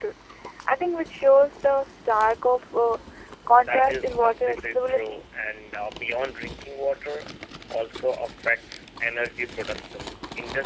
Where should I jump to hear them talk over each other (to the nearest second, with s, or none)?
4 s